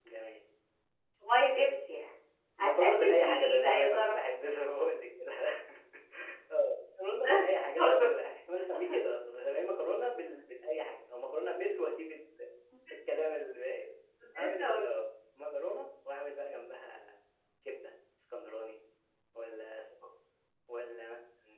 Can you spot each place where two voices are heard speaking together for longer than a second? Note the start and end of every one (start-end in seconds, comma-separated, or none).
2.6-4.2